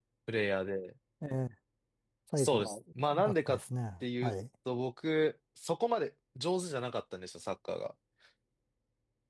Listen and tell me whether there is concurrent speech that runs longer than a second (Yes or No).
Yes